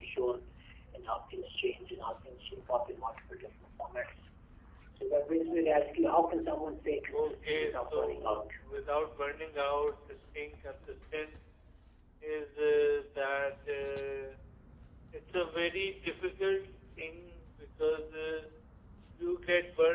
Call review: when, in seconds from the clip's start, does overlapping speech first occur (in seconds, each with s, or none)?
7.1 s